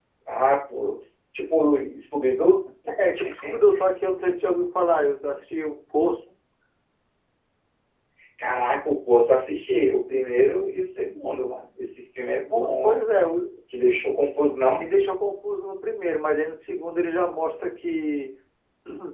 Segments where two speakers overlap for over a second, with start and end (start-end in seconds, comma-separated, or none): none